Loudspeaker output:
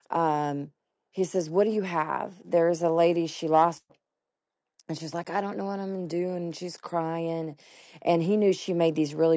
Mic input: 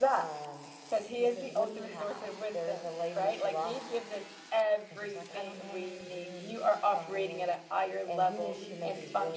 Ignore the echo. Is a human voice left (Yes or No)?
Yes